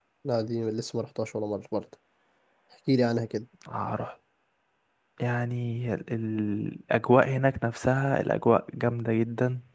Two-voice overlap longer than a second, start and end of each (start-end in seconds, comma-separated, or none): none